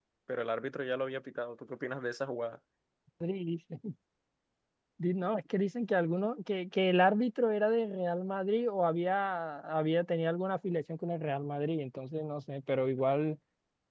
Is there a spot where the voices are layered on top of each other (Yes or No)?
No